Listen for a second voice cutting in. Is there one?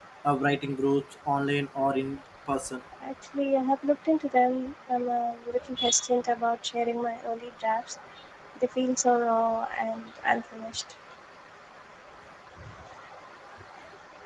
No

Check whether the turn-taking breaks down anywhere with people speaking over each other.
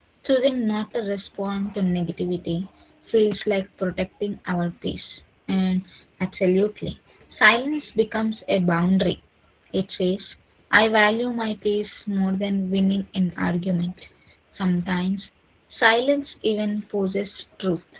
No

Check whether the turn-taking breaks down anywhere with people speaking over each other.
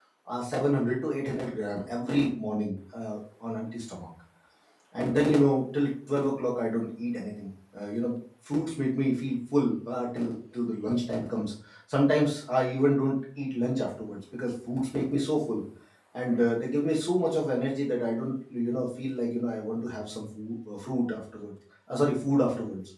No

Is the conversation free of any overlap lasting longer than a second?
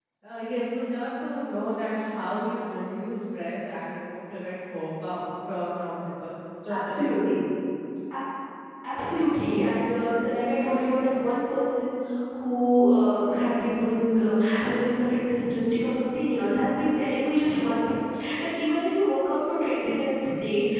Yes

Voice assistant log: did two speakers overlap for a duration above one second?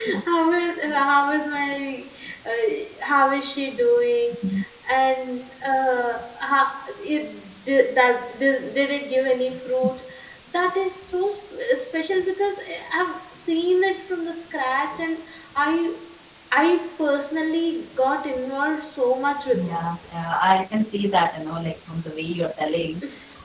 No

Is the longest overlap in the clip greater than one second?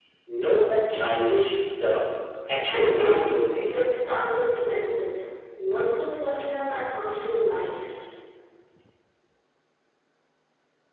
Yes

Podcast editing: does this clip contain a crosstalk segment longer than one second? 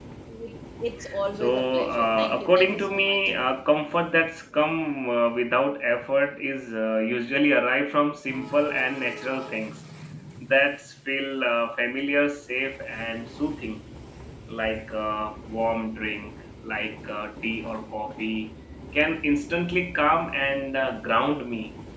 Yes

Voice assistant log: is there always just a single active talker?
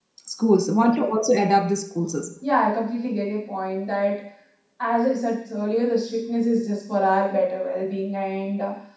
Yes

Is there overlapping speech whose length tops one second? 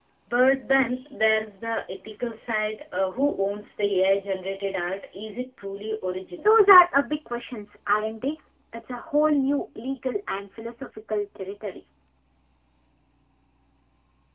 No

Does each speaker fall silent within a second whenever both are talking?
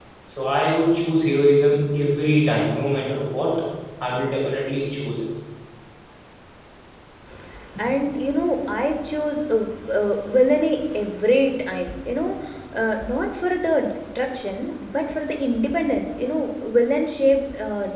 Yes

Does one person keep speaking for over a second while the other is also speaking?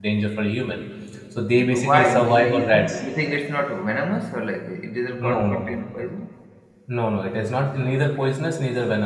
Yes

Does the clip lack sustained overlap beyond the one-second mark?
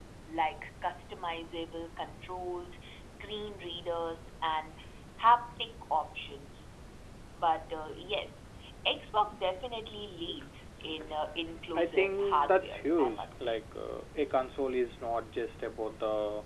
No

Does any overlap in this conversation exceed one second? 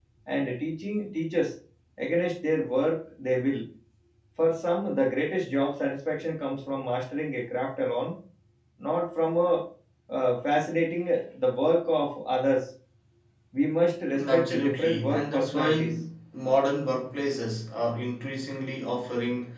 Yes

